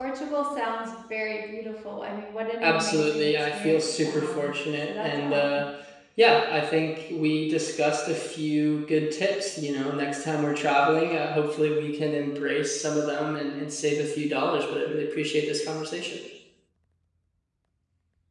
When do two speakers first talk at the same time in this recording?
2.6 s

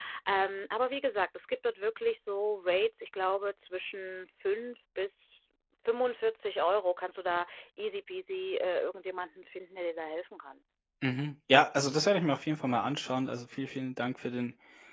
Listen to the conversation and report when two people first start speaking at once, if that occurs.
none

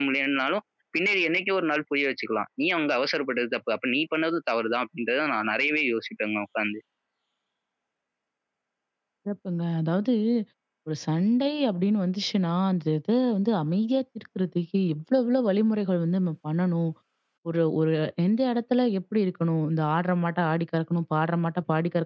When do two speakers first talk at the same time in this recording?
none

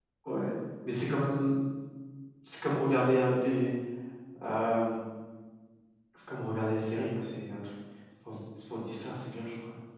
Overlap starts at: none

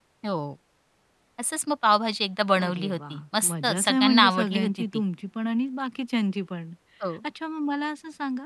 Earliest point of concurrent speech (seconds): 2.6 s

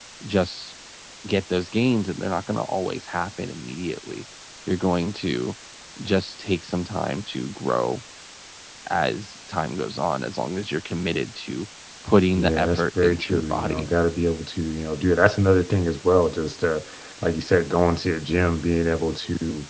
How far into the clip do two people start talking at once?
12.3 s

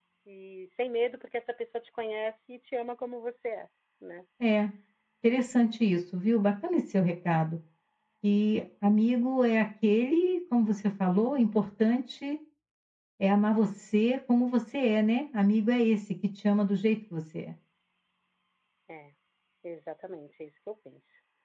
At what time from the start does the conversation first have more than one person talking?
none

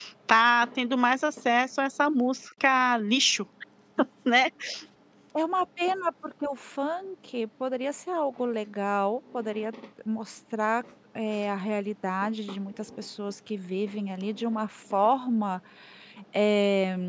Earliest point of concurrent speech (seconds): none

